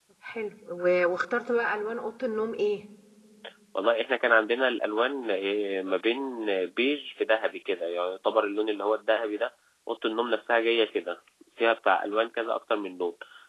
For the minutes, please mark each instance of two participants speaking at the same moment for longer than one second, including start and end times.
none

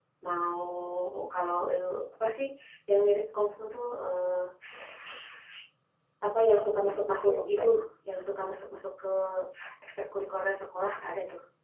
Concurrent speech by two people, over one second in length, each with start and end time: 6.4-7.6

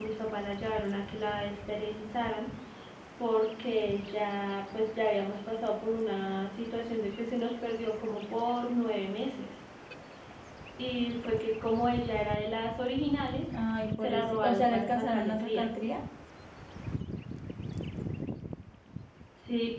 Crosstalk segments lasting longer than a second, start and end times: 14.0-15.7

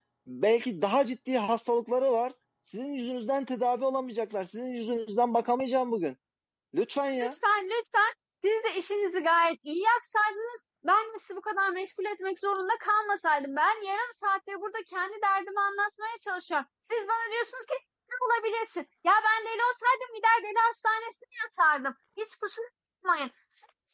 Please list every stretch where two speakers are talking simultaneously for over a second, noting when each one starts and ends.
none

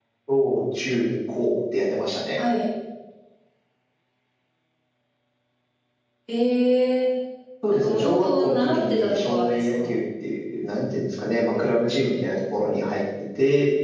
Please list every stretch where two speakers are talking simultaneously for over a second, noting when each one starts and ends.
7.7-9.9

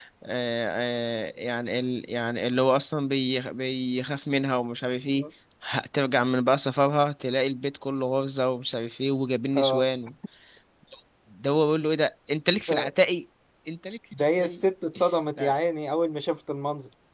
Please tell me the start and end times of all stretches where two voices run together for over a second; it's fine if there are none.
none

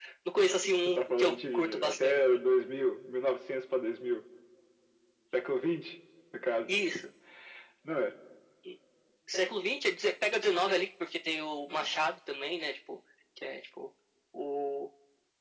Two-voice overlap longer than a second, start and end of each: 0.8-2.2

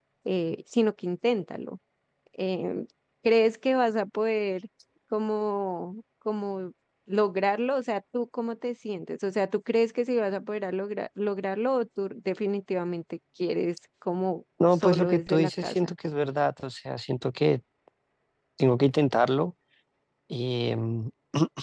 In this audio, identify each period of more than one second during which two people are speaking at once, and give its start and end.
14.6-15.9

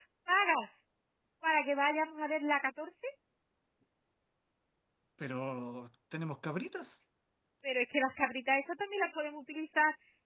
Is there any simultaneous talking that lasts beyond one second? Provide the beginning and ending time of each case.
none

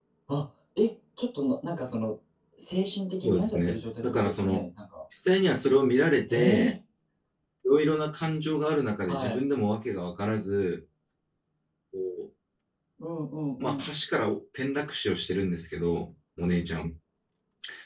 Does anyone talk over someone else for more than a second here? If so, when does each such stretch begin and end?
3.2-4.6

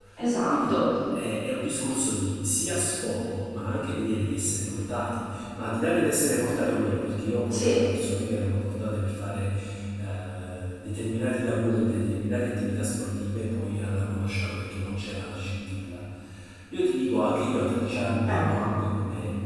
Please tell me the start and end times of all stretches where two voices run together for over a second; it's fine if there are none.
none

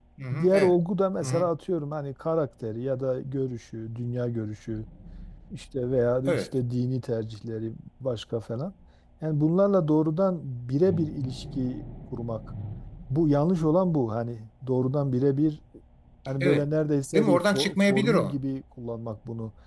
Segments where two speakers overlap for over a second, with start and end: 17.1-18.4

